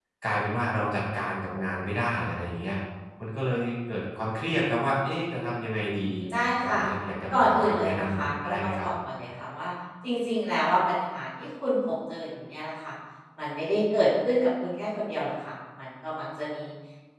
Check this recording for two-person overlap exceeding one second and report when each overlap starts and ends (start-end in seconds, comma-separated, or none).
7.3-8.9